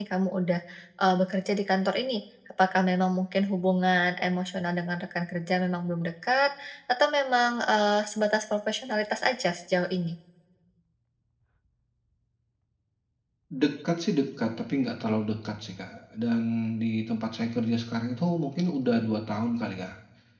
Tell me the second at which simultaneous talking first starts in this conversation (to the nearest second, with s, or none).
none